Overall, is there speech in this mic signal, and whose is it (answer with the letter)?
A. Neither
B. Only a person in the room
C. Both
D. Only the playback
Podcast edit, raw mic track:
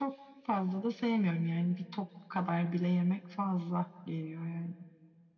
D